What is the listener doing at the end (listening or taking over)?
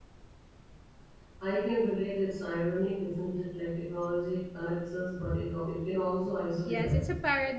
taking over